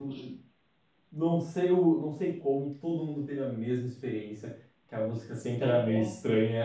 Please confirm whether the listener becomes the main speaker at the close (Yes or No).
No